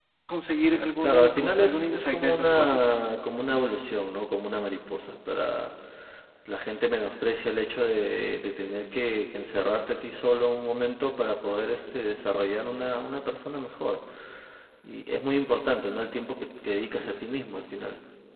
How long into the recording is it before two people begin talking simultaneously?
1.0 s

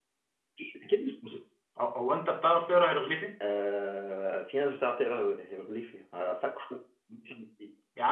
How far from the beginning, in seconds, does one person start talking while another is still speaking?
none

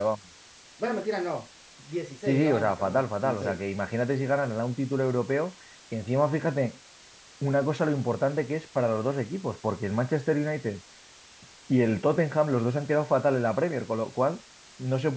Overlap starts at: 2.3 s

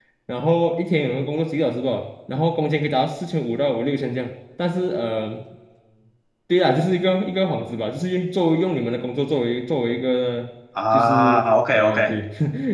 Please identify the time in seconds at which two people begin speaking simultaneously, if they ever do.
10.8 s

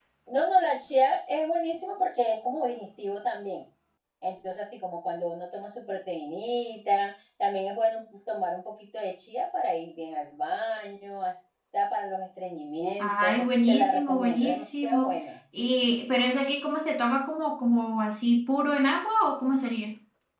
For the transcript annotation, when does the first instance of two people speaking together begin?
13.0 s

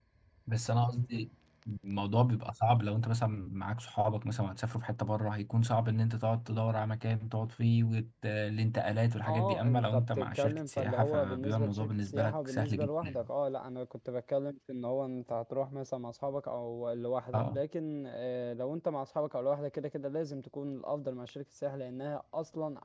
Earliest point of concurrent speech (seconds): 9.2 s

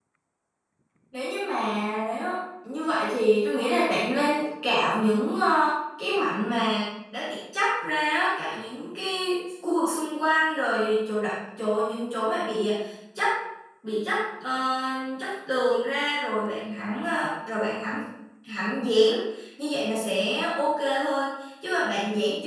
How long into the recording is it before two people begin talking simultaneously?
none

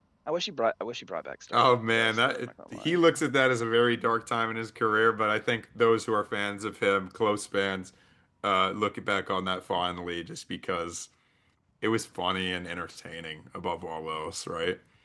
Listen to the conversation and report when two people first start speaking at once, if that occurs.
1.5 s

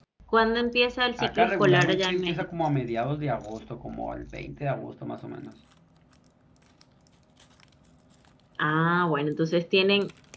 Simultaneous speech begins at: 1.2 s

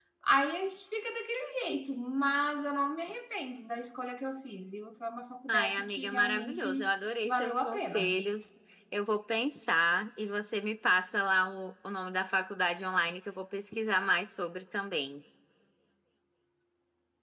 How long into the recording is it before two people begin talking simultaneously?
5.5 s

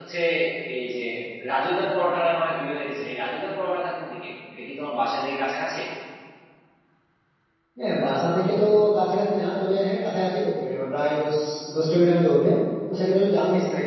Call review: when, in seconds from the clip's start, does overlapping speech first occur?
none

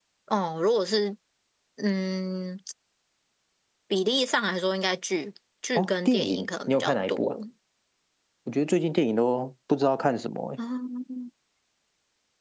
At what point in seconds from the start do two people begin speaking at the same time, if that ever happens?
5.8 s

